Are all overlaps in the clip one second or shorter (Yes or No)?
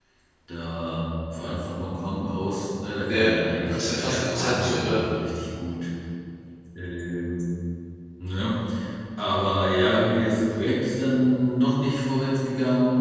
No